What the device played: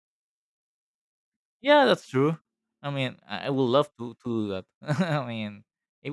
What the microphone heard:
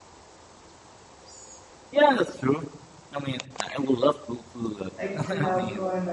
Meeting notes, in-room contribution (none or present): present